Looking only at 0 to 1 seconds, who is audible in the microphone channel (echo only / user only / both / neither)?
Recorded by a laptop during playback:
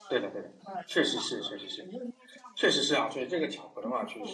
both